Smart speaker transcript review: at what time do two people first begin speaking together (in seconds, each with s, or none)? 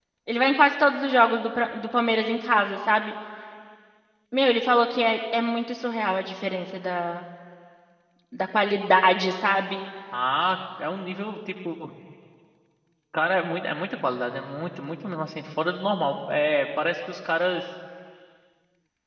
none